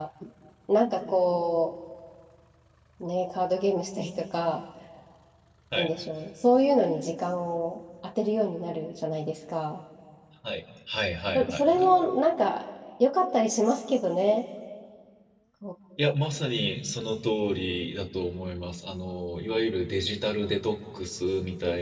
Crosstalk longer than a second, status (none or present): none